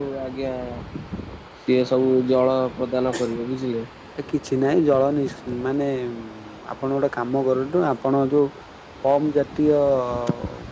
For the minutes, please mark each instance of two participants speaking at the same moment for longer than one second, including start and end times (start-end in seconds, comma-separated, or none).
none